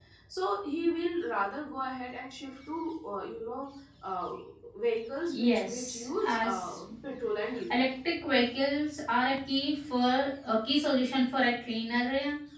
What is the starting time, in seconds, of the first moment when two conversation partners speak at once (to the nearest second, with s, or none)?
5 s